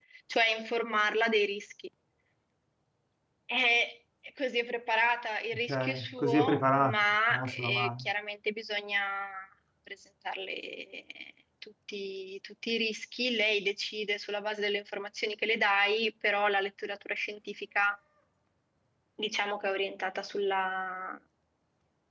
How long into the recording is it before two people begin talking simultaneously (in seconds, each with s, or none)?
5.7 s